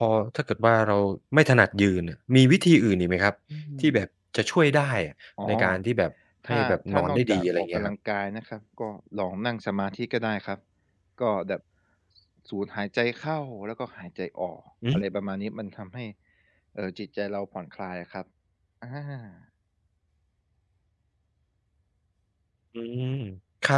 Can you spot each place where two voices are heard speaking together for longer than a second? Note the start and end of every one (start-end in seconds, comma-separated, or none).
6.5-7.9